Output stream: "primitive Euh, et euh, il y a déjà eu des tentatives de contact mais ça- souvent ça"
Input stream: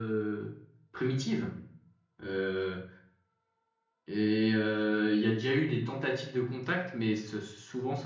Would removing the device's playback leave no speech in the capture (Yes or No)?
Yes